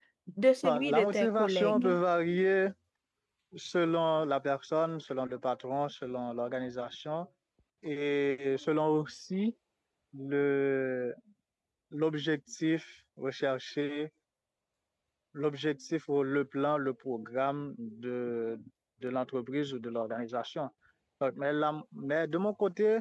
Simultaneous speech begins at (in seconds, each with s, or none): 0.6 s